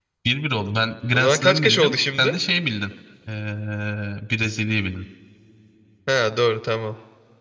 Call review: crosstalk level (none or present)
present